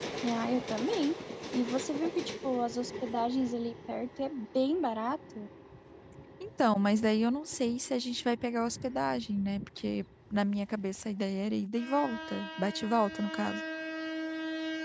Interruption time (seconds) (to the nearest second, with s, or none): none